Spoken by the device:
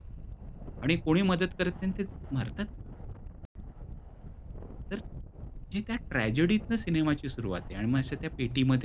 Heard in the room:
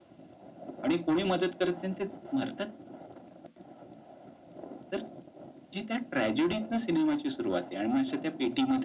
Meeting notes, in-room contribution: none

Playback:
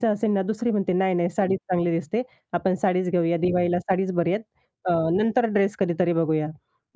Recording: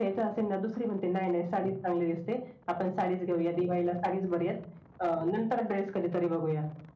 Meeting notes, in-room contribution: none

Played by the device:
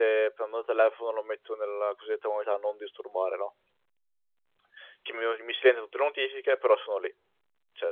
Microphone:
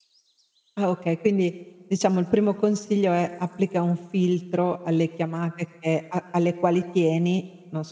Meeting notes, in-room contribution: present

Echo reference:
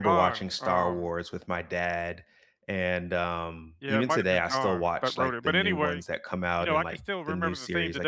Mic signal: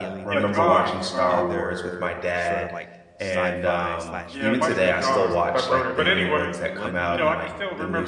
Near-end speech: present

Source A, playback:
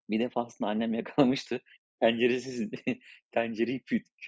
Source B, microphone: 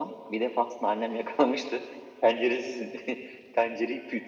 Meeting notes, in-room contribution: none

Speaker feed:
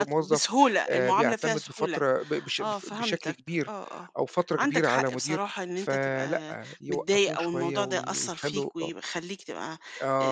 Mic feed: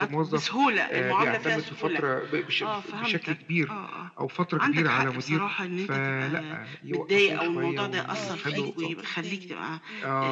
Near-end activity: present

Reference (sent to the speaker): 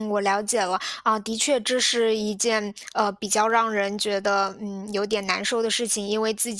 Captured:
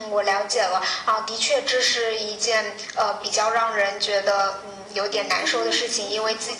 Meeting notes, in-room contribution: present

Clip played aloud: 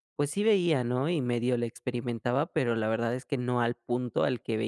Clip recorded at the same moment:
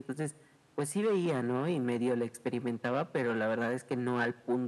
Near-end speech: none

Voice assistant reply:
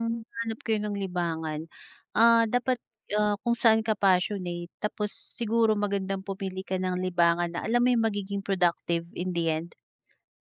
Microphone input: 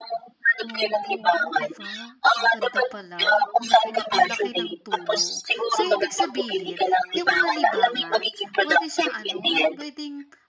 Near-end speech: present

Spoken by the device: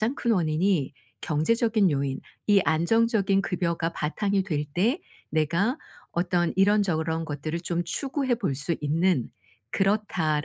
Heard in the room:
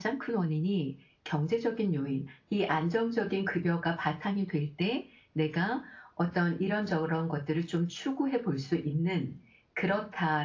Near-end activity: none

